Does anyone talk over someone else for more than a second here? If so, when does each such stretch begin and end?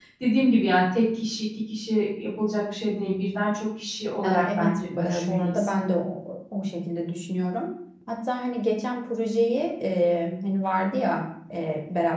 4.2-5.7

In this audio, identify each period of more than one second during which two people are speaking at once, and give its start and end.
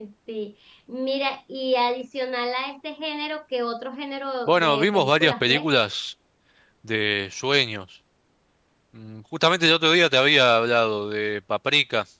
4.5-5.7

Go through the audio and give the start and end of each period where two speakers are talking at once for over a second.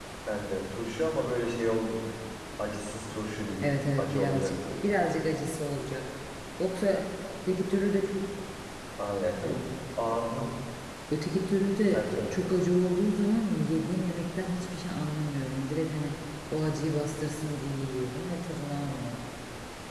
3.6-4.9

